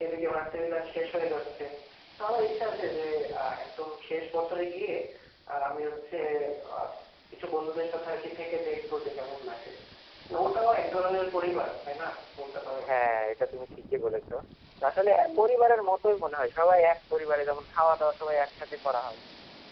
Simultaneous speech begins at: none

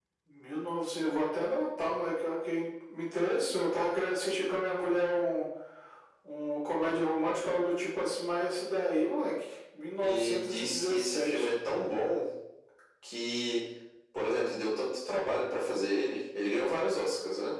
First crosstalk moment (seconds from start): 10.0 s

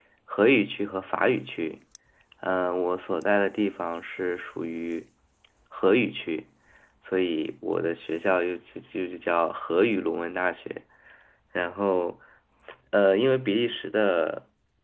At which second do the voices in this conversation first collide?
none

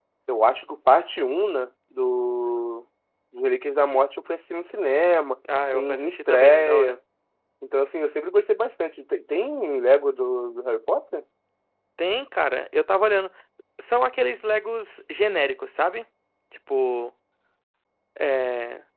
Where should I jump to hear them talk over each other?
5.7 s

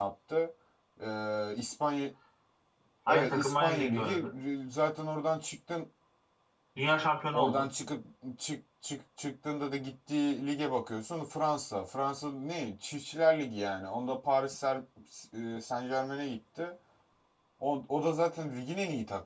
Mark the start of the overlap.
3.1 s

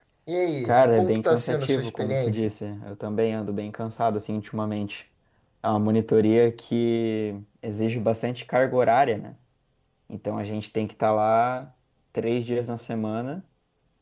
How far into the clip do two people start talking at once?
0.6 s

